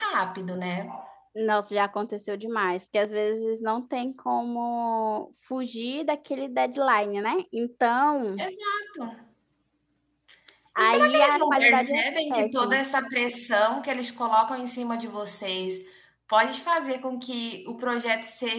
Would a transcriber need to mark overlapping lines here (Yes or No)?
Yes